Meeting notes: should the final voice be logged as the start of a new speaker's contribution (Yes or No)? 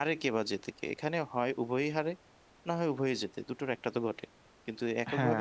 Yes